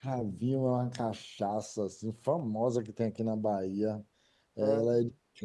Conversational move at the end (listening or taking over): listening